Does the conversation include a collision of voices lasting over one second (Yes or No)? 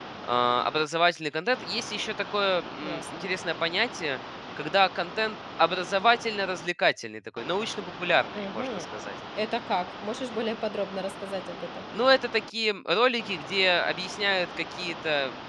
No